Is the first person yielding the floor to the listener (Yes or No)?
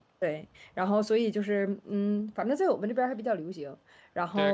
Yes